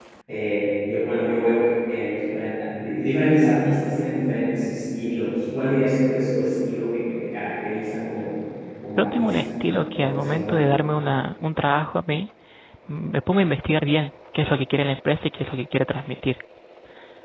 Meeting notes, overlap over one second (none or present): present